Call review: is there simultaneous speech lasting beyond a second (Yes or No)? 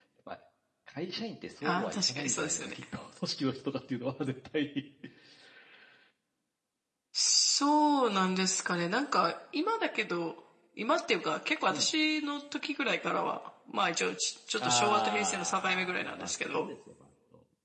Yes